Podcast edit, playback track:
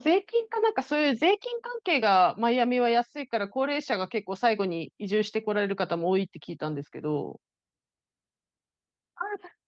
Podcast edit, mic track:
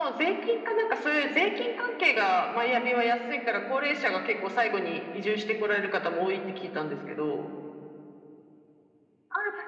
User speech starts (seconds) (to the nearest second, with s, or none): none